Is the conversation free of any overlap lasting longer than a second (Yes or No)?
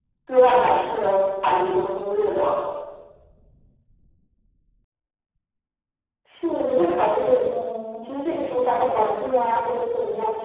Yes